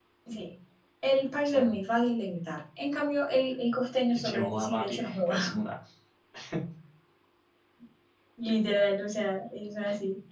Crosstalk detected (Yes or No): Yes